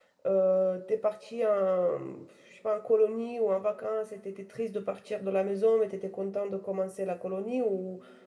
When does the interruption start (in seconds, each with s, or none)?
none